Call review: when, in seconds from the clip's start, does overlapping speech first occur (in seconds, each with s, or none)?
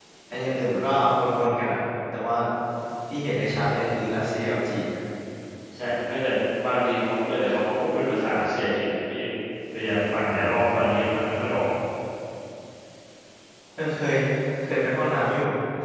none